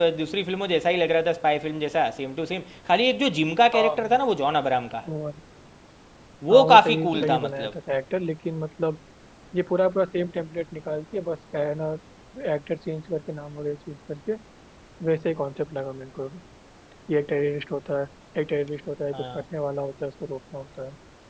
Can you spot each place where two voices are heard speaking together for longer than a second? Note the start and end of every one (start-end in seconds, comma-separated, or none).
6.5-7.7